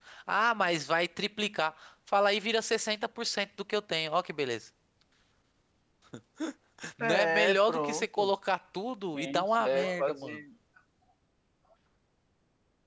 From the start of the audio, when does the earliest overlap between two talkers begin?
7.0 s

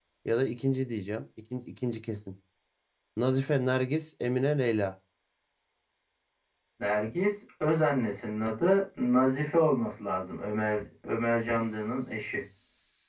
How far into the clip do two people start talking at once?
none

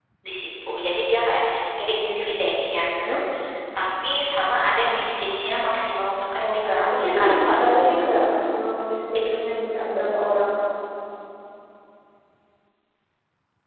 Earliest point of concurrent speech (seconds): 6.4 s

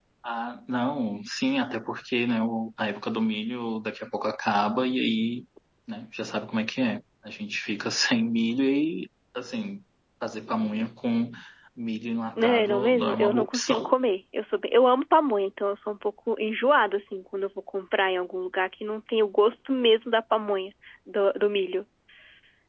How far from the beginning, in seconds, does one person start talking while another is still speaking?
12.4 s

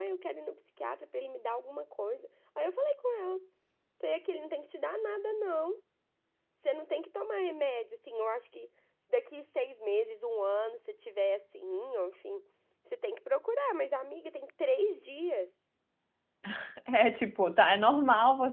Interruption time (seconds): none

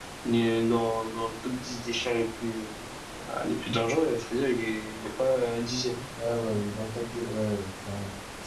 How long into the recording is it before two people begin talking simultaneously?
none

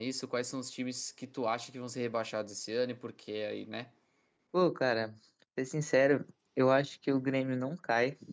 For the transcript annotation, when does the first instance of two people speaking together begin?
none

